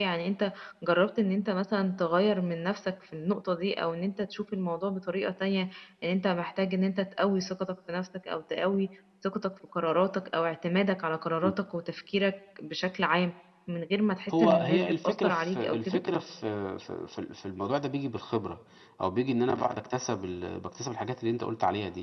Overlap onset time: 14.3 s

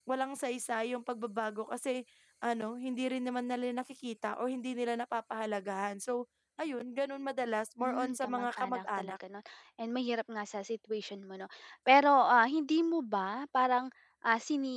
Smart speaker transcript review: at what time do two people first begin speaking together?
7.8 s

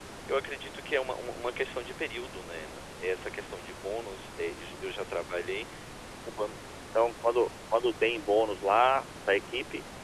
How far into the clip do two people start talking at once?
none

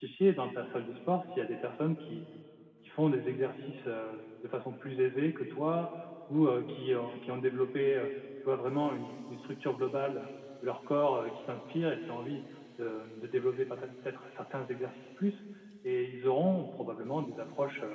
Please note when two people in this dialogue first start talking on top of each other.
none

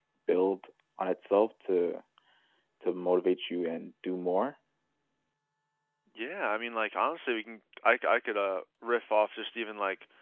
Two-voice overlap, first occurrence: none

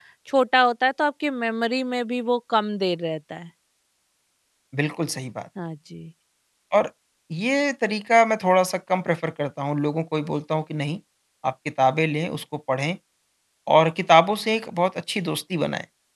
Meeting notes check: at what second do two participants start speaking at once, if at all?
none

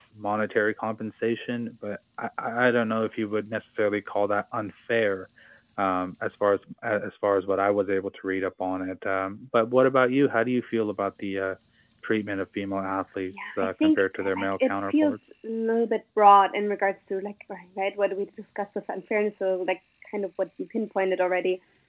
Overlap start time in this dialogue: 13.3 s

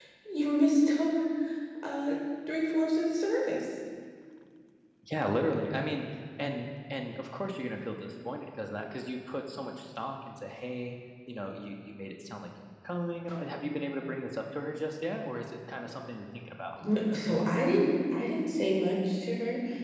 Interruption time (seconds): none

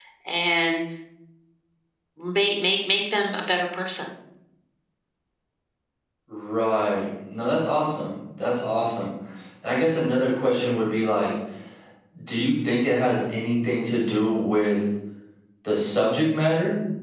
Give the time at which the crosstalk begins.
none

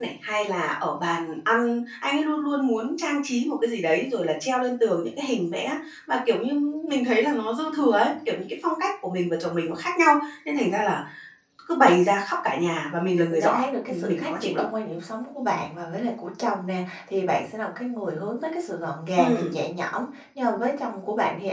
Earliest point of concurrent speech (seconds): 13.3 s

